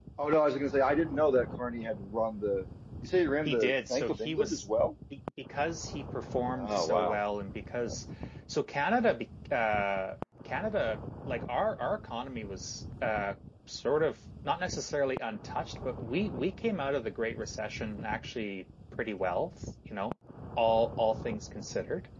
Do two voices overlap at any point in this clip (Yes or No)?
Yes